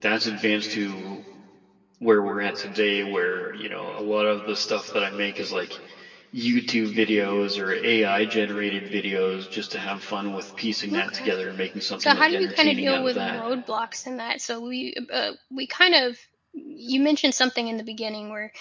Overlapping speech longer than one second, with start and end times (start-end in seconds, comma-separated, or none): 12.0-13.4